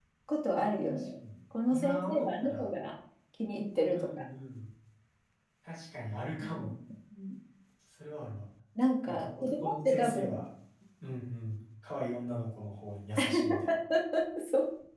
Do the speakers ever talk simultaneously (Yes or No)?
Yes